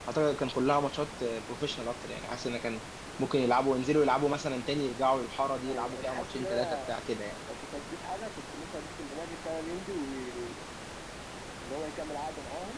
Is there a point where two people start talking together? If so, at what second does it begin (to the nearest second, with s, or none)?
6 s